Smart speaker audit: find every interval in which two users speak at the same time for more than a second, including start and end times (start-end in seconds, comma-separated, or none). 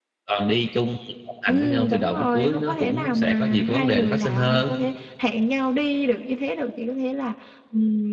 1.5-4.7